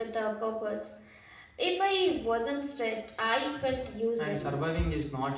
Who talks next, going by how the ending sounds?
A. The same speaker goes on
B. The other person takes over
B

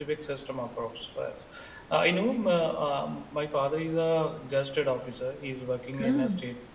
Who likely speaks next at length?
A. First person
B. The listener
A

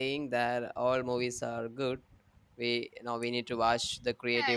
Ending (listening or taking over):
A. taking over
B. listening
A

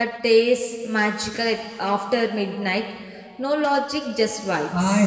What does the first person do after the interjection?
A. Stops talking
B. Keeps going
A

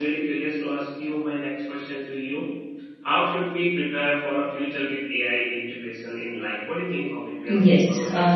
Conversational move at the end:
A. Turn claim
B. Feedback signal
A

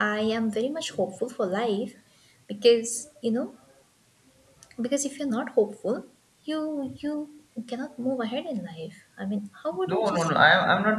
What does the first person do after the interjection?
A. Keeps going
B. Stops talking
B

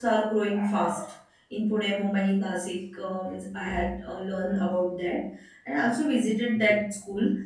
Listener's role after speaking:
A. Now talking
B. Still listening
B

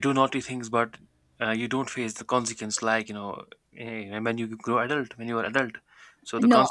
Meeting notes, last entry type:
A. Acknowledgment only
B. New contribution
B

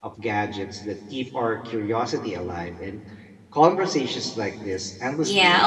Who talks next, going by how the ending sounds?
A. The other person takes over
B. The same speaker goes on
A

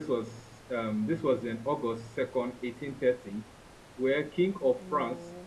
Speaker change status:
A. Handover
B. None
B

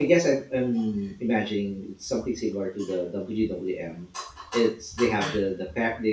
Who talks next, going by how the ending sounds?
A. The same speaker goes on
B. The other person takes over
A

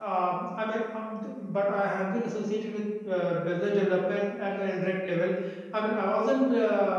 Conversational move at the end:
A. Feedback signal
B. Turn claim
A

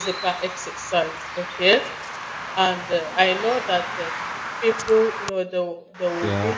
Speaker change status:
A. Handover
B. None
B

